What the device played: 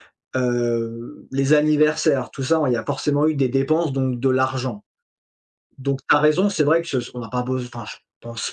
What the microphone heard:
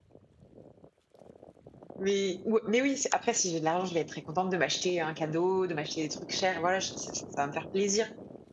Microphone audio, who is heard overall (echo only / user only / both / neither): user only